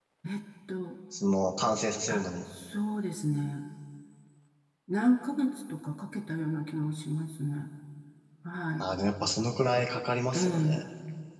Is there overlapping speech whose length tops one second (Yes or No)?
No